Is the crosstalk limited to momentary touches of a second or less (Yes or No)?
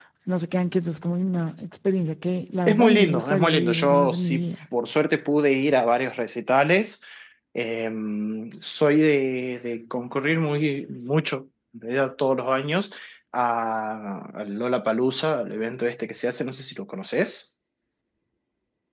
No